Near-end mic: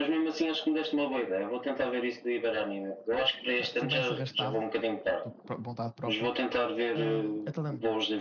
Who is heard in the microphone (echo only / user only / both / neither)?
both